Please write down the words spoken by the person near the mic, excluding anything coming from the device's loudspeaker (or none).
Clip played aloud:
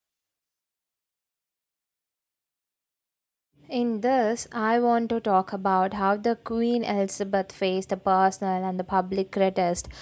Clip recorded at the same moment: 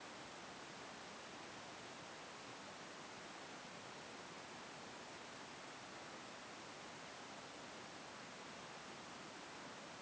none